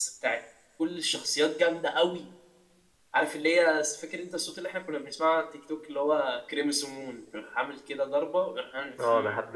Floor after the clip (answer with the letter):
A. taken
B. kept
A